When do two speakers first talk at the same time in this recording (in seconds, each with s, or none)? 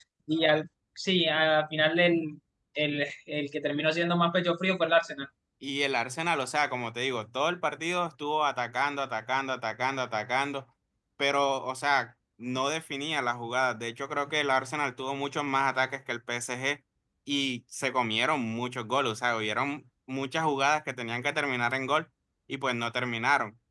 none